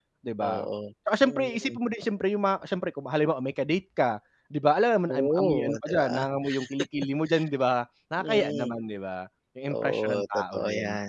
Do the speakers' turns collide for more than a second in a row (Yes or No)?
Yes